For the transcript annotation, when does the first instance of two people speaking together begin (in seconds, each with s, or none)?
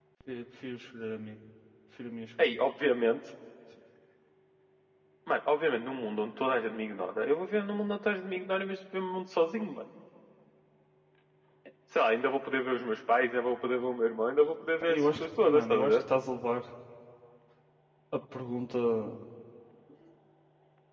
14.8 s